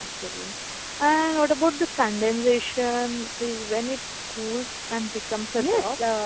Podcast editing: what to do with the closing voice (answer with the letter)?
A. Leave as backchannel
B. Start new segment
B